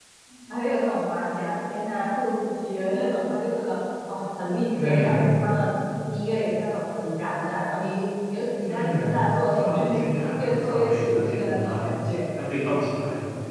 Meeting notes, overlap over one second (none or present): present